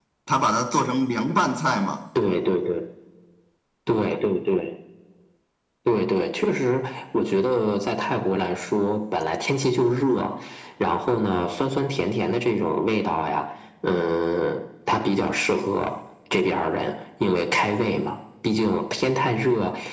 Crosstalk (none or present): none